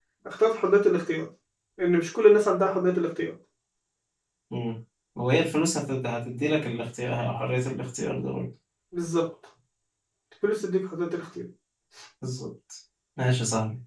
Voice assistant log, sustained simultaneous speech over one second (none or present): none